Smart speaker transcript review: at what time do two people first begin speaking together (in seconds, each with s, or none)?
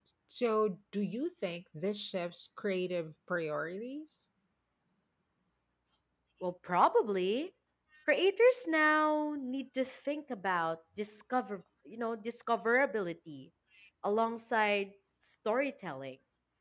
none